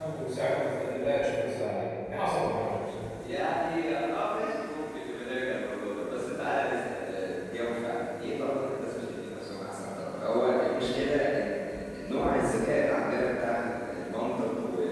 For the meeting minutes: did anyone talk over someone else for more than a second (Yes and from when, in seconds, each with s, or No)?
No